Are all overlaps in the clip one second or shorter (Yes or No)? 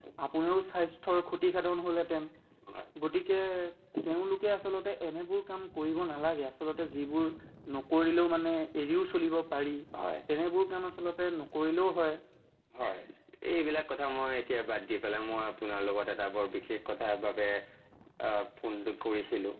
Yes